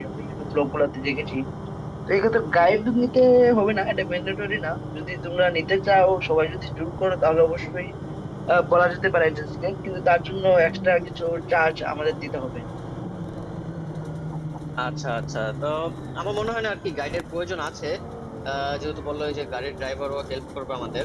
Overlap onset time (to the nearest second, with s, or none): none